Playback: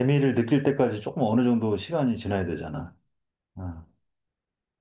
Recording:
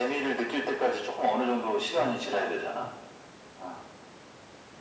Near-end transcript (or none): 음, 음,